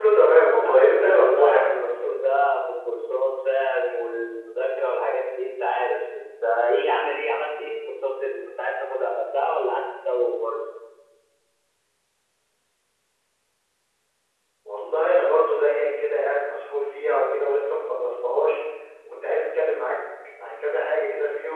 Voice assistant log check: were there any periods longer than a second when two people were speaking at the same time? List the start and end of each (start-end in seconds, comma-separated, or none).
0.6-1.8